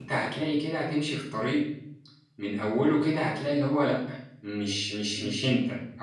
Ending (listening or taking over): listening